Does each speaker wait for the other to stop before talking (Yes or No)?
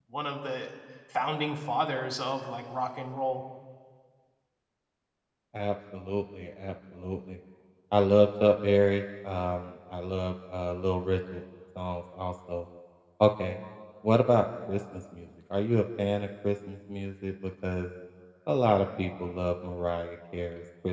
Yes